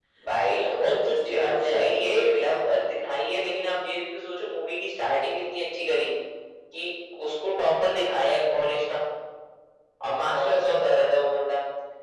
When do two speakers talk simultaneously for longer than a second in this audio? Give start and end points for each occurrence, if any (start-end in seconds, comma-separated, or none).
0.5-2.4